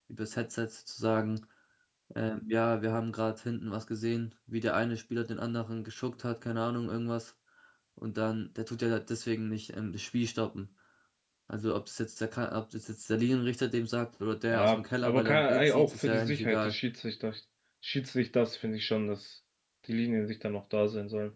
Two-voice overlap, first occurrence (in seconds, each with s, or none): 14.5 s